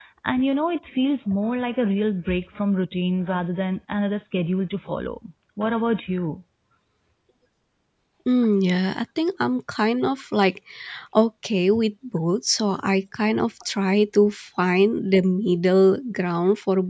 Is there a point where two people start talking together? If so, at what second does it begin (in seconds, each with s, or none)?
none